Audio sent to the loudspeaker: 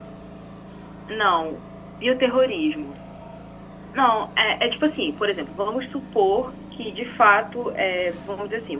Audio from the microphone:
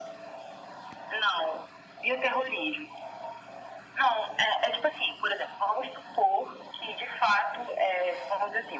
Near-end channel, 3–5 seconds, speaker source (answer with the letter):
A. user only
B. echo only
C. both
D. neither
B